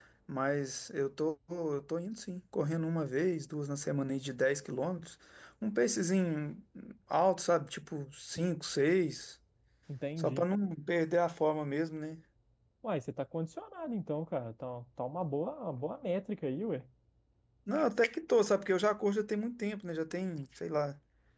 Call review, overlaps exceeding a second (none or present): none